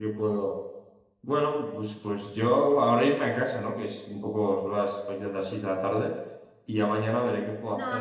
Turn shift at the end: Yes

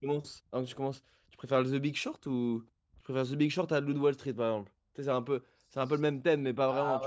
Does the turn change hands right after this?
Yes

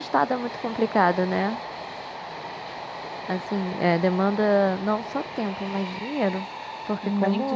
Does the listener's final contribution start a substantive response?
Yes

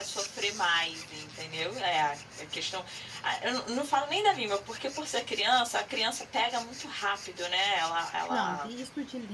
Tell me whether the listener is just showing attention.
No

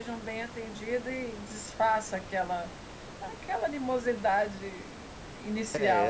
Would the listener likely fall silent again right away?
No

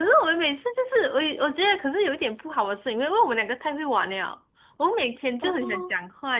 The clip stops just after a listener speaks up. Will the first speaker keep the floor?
Yes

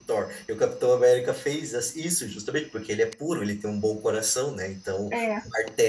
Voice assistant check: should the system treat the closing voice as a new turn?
No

